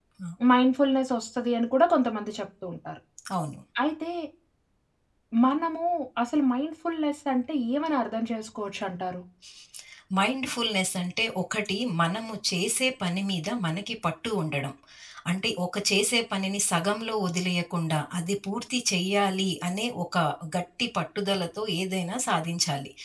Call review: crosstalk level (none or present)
none